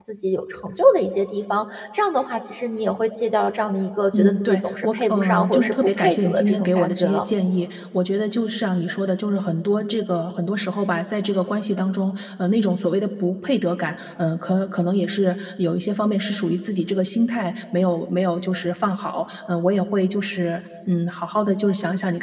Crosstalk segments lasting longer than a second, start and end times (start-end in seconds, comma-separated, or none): 4.2-7.2